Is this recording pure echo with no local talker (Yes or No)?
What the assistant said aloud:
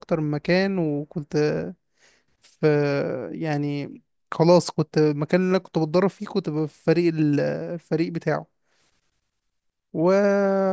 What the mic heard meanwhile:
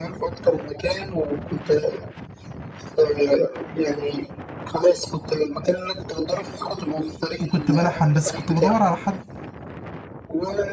No